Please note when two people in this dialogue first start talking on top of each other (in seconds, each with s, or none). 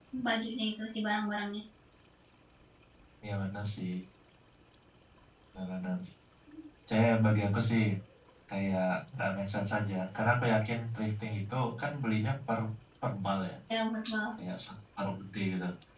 none